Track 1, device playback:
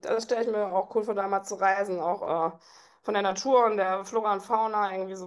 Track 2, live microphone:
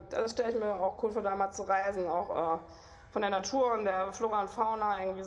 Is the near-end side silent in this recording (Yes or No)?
Yes